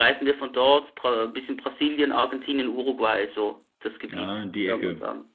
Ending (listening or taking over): taking over